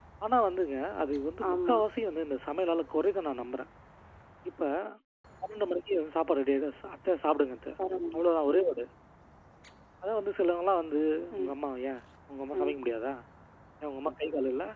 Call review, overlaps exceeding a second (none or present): none